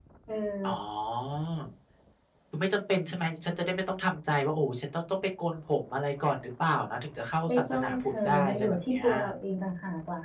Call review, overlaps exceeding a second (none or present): present